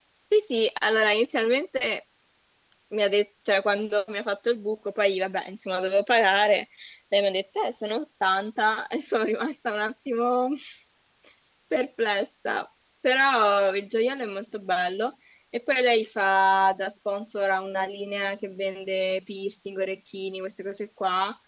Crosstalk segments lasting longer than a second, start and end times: none

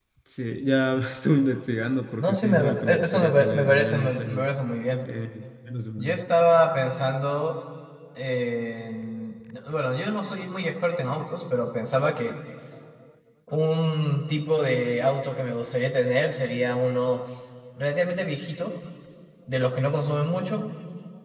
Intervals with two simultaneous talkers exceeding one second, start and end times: 2.2-4.5

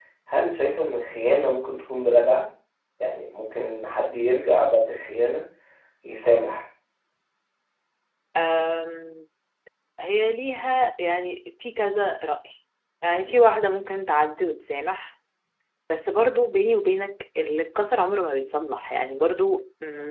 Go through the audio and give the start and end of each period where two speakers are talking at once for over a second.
none

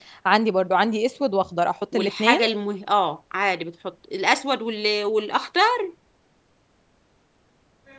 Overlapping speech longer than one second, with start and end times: none

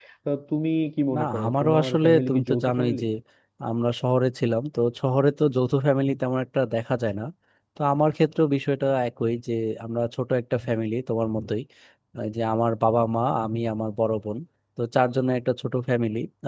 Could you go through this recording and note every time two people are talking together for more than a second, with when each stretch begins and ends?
1.1-3.0

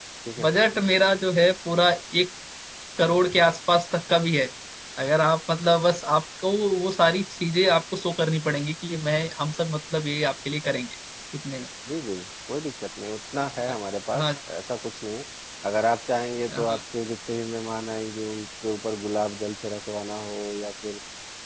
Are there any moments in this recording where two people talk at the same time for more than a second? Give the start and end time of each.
none

